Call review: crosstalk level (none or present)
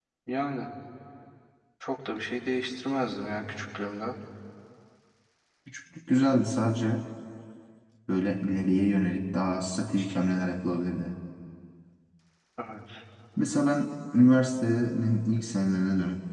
none